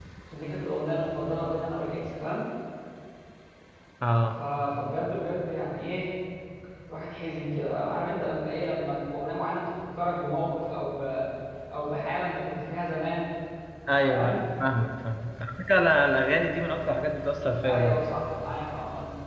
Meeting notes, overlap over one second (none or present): none